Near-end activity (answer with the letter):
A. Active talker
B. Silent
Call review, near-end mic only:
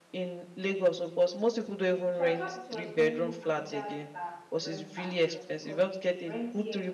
A